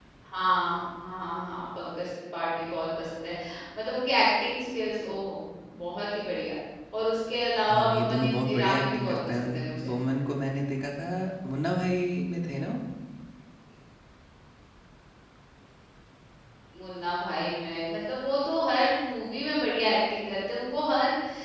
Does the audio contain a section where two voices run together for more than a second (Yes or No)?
Yes